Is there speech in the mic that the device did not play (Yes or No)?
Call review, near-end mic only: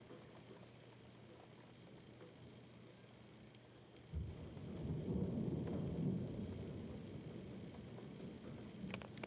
No